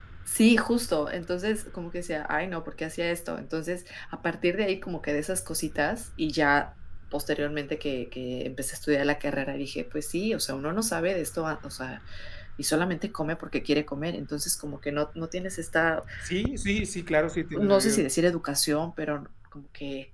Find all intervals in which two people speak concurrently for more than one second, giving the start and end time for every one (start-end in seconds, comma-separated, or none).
none